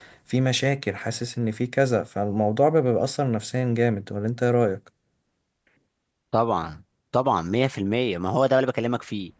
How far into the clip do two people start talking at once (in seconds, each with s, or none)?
none